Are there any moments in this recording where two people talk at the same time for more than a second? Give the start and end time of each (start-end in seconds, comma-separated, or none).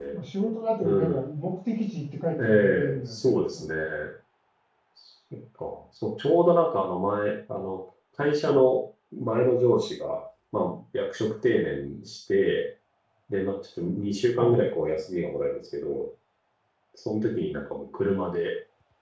2.4-3.6